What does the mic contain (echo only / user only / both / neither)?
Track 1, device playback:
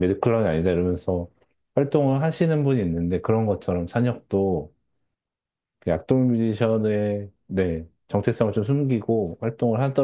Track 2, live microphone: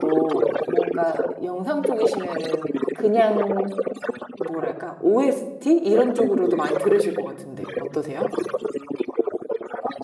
both